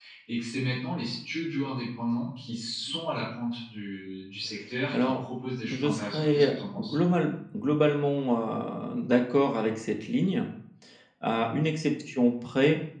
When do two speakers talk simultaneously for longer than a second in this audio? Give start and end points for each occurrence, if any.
5.7-7.0

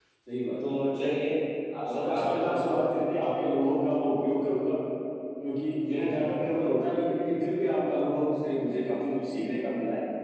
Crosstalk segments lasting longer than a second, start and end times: 1.9-3.2

